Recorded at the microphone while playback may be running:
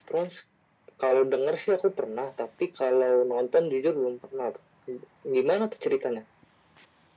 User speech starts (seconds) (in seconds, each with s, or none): none